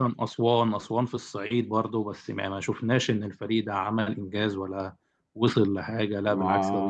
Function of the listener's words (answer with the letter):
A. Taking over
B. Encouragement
A